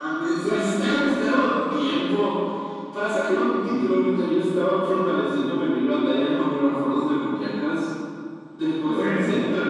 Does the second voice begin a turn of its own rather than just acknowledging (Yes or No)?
No